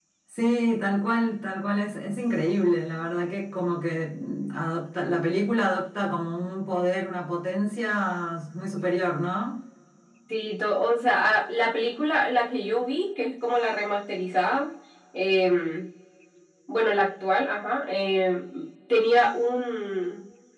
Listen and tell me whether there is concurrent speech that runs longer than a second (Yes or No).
No